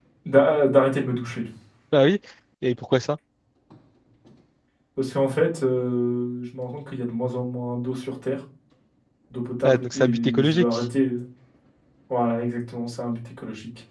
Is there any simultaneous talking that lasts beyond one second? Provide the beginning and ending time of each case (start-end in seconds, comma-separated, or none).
9.6-10.8